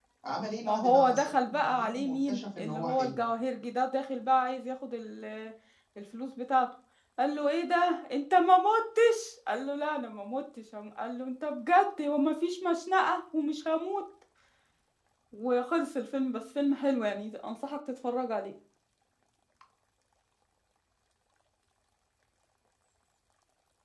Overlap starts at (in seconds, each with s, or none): 0.6 s